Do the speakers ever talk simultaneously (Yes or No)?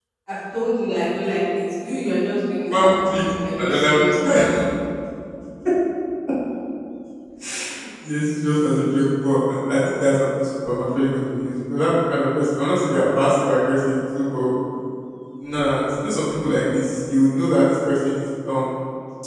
Yes